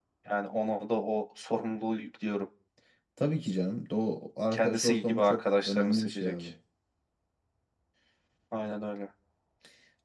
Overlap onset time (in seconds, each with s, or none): 4.5 s